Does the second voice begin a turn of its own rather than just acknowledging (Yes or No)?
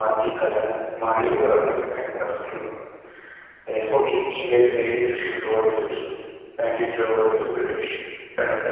Yes